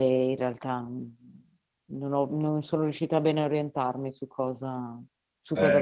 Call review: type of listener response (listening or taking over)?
taking over